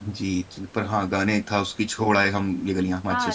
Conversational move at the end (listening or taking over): taking over